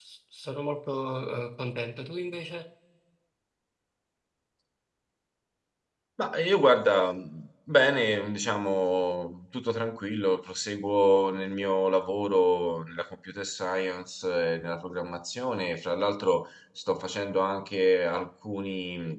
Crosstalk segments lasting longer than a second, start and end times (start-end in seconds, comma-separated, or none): none